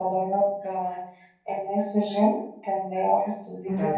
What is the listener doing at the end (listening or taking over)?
listening